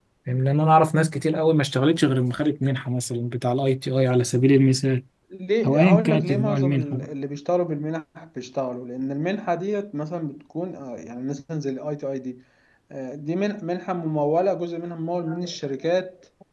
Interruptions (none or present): present